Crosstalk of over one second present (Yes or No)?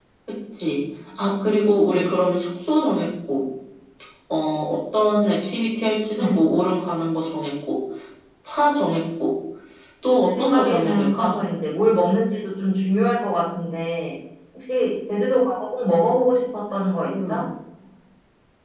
Yes